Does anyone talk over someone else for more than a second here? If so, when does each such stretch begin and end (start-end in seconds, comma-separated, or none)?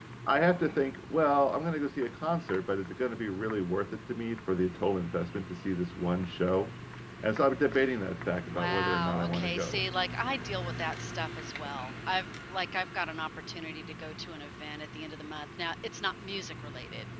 8.4-9.8